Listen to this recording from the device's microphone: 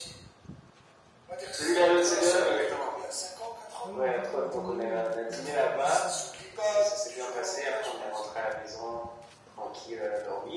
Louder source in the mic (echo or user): echo